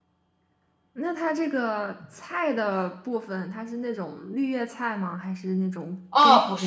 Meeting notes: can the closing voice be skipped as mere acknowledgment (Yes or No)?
No